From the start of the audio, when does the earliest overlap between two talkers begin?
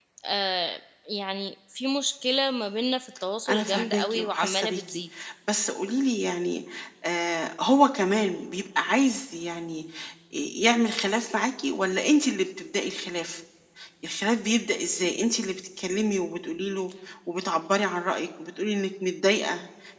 3.4 s

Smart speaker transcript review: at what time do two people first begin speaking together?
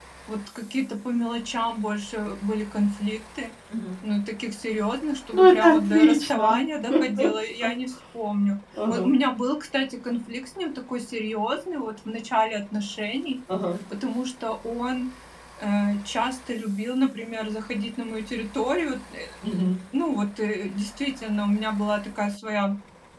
5.3 s

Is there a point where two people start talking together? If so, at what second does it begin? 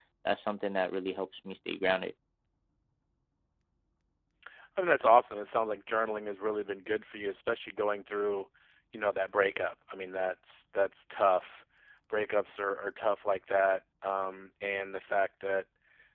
none

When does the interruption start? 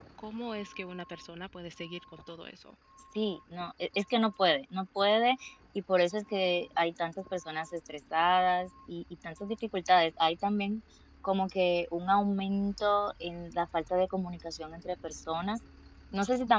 none

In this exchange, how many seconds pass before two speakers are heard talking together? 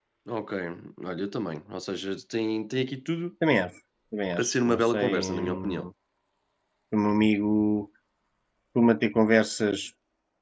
4.3 s

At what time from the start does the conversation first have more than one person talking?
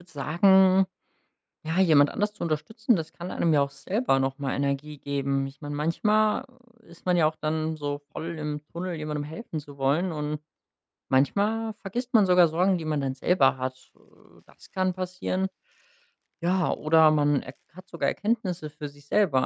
none

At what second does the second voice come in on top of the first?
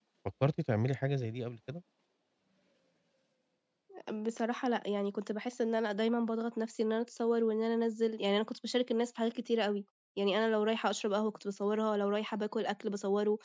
none

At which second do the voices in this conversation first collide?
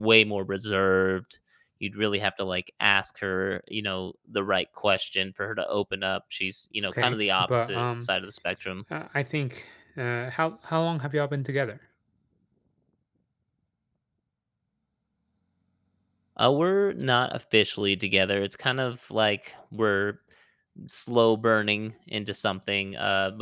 6.8 s

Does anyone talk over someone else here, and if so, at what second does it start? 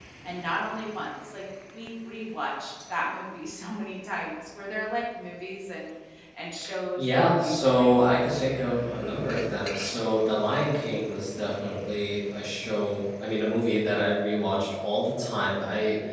7.0 s

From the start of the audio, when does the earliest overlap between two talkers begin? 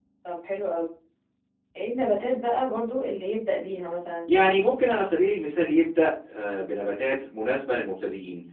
none

